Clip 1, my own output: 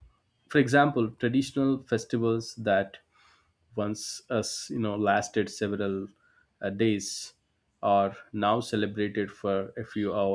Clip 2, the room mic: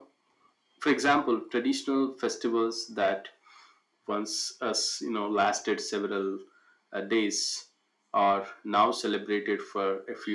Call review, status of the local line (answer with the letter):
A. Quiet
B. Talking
A